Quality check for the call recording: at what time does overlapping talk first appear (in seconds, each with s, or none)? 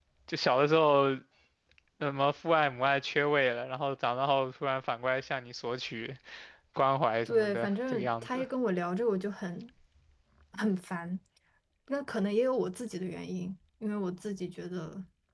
7.2 s